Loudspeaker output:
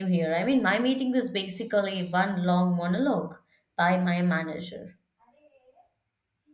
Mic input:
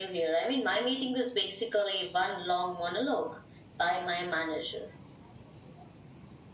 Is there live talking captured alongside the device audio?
No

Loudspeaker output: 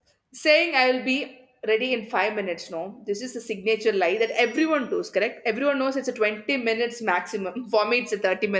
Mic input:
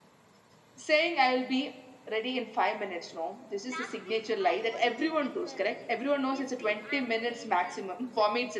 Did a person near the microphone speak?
Yes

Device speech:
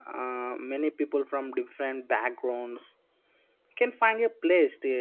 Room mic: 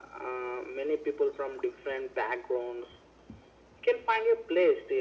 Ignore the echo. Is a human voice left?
No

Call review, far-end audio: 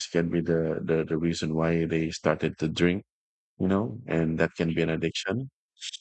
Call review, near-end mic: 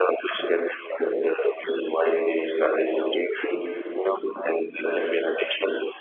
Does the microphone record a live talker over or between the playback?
No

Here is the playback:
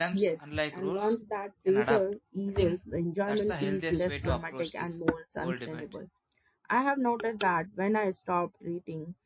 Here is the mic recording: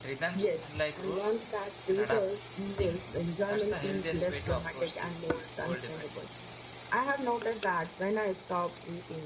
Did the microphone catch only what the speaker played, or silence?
Yes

